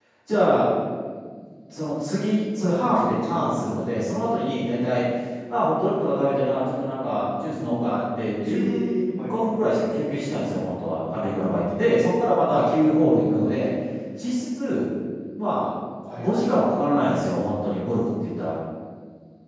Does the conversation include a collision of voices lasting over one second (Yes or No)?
No